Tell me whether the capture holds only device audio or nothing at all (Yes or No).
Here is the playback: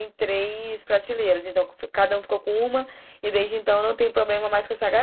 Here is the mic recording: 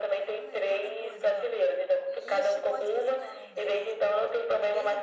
No